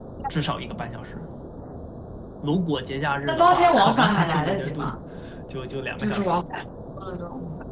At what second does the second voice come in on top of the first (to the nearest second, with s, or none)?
3 s